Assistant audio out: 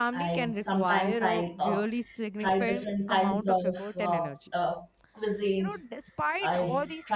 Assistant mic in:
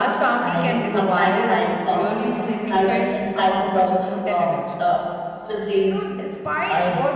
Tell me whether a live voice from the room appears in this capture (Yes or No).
Yes